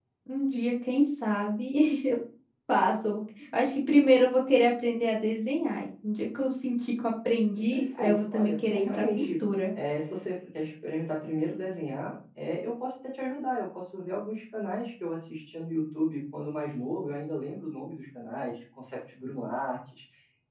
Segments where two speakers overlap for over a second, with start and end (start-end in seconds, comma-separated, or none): 7.7-9.5